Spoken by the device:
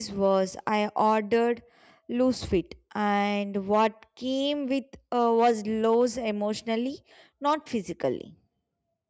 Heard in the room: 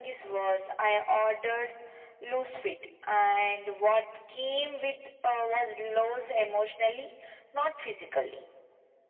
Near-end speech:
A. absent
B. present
A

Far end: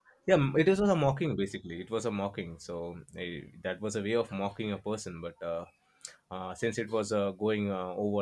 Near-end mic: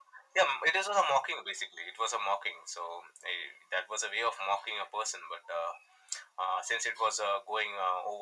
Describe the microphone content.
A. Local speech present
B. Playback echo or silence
B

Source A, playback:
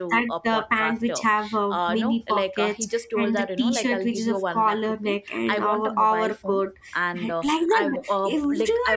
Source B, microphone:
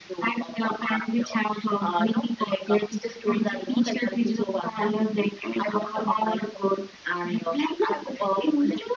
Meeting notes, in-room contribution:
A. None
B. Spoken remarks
A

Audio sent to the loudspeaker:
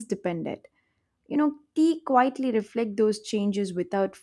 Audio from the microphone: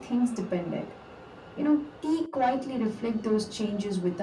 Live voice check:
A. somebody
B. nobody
B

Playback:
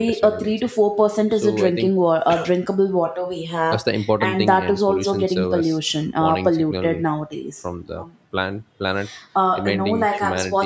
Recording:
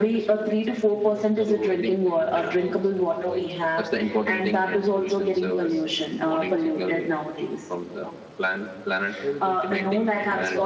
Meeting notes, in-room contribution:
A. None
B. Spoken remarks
B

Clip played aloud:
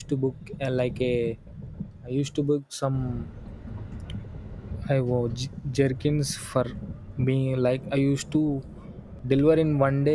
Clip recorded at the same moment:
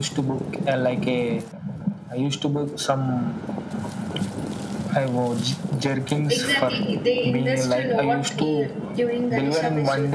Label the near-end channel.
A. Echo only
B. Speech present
B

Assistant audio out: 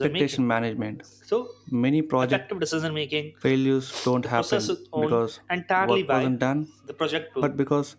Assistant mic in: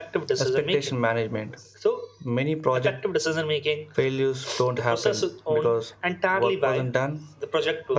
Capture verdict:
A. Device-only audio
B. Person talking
A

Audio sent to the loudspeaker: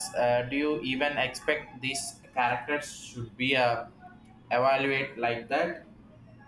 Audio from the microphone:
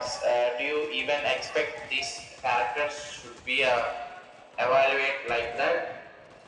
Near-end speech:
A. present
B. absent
B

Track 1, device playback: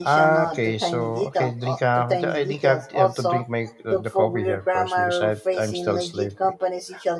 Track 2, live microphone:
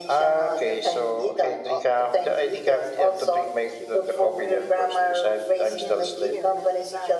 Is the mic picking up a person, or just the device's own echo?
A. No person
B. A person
B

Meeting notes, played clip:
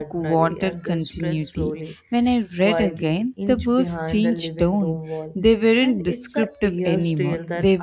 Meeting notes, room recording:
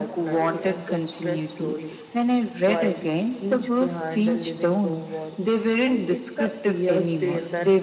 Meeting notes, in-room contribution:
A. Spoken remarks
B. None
B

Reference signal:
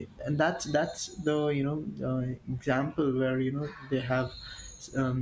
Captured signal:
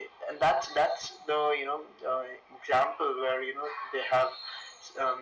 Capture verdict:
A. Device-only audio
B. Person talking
A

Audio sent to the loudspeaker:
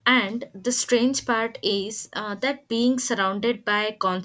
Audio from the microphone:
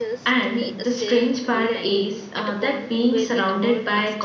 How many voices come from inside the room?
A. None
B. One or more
B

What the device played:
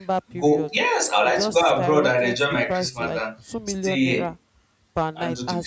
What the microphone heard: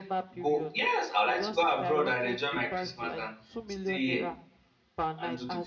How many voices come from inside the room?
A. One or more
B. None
B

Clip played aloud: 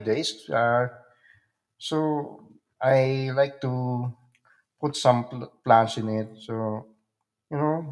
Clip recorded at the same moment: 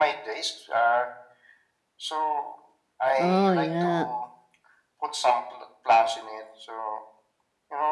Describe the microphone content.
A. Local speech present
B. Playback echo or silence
A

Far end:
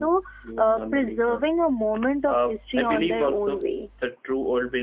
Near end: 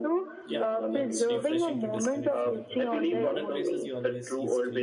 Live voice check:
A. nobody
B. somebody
B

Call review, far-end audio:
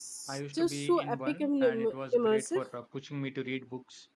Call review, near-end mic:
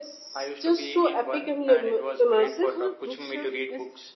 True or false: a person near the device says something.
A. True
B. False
A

